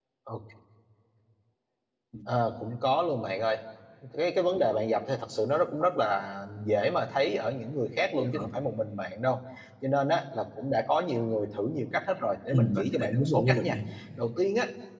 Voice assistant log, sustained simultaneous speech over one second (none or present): present